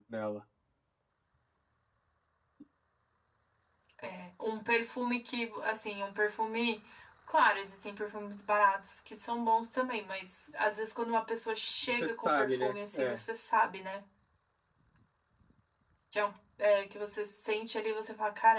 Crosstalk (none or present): present